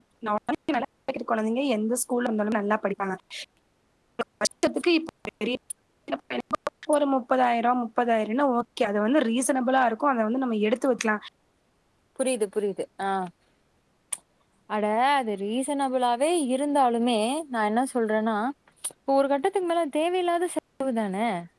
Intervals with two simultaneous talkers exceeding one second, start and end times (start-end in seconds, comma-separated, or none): none